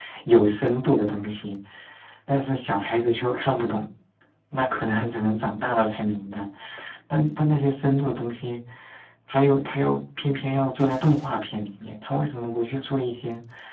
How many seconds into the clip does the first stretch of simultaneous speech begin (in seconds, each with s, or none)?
none